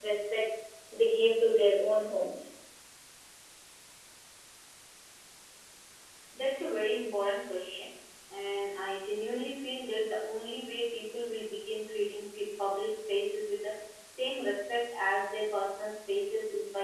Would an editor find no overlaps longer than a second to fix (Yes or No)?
Yes